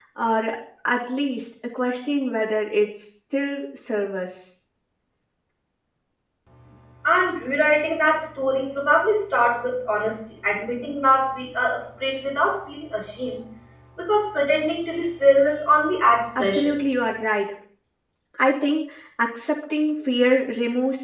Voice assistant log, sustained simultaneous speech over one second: none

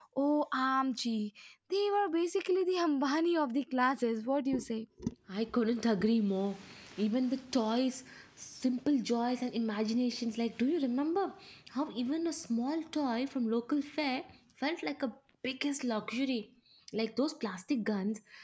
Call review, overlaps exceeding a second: none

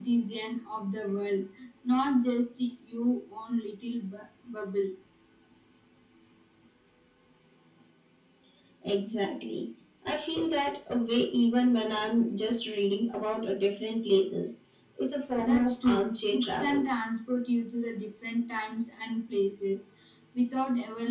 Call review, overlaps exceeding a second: present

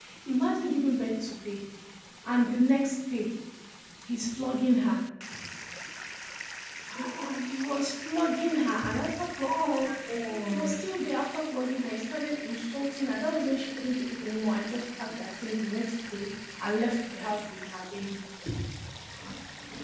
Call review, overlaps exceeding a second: none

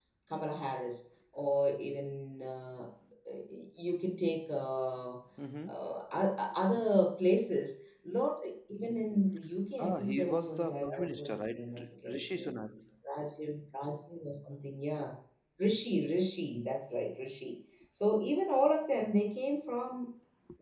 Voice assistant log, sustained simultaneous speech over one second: present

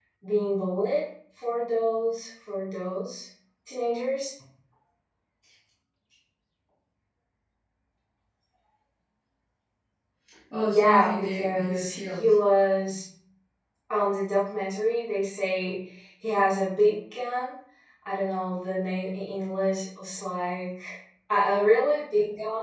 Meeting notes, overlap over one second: present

